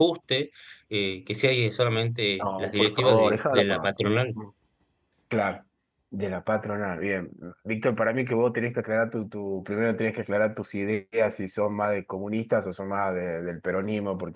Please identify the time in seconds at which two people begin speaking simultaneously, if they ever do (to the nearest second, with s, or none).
2 s